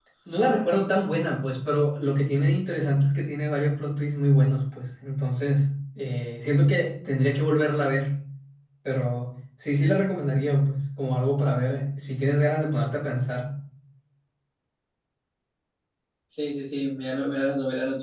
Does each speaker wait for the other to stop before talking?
Yes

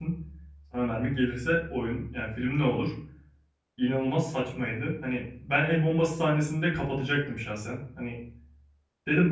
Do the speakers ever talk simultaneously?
No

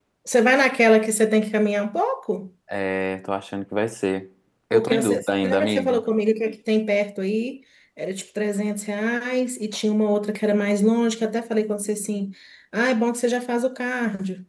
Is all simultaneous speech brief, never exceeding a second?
No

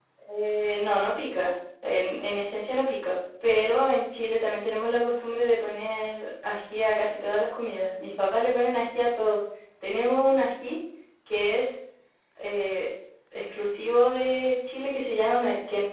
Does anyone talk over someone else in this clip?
No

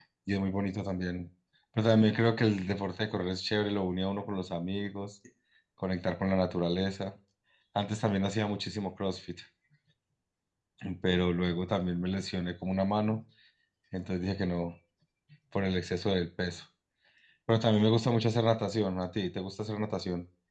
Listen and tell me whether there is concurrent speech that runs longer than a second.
No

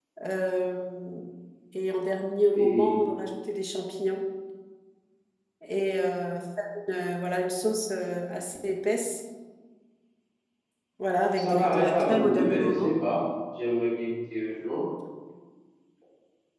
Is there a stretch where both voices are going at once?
Yes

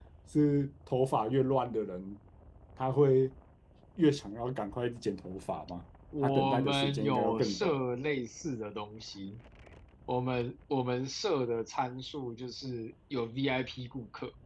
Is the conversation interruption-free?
No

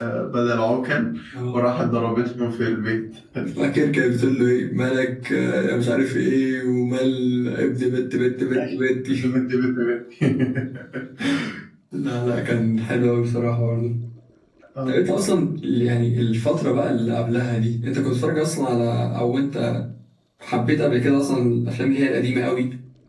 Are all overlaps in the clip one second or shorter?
Yes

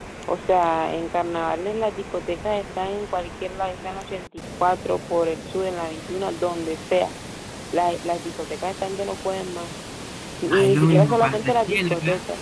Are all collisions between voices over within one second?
No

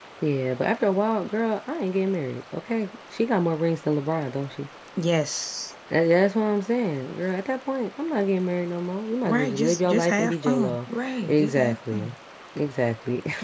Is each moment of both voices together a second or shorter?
No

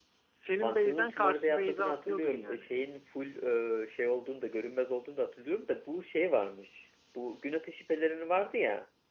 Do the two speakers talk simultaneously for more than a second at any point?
Yes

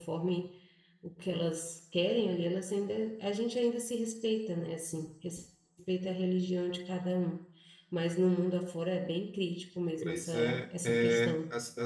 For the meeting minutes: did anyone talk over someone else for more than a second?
Yes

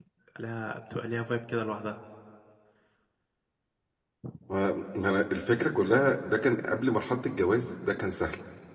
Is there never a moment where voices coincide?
Yes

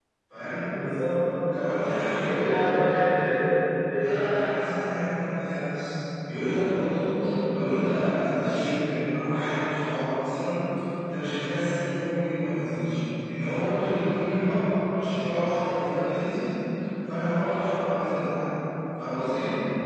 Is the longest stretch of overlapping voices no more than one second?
Yes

